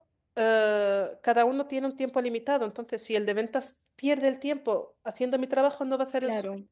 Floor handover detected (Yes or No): Yes